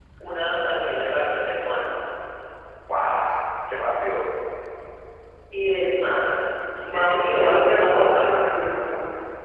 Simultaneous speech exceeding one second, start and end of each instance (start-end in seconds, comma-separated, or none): 6.8-8.4